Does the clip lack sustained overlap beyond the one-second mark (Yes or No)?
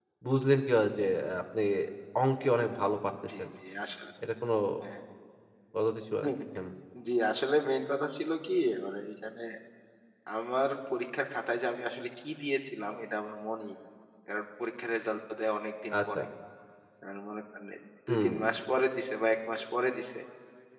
Yes